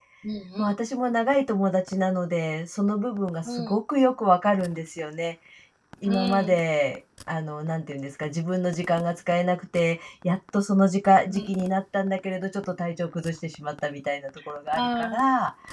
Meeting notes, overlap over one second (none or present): none